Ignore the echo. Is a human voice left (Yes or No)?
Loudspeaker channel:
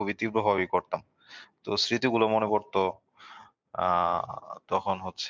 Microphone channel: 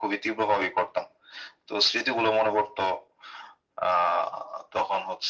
No